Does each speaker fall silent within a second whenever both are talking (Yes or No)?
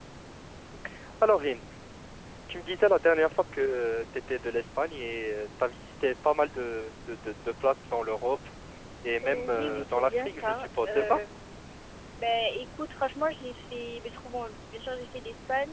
No